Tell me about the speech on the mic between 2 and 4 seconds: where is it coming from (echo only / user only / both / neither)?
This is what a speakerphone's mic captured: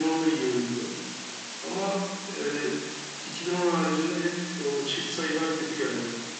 echo only